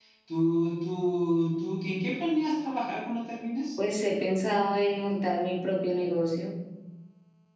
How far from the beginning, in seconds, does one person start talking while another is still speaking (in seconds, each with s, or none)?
none